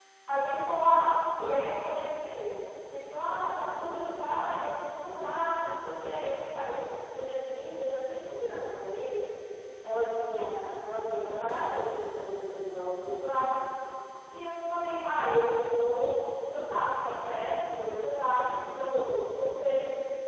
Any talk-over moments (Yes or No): No